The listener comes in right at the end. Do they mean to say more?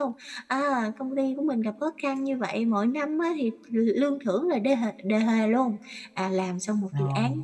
No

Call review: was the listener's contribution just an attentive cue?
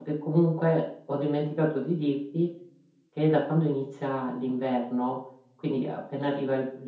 Yes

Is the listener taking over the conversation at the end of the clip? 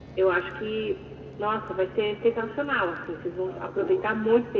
No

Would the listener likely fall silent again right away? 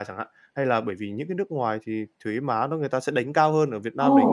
No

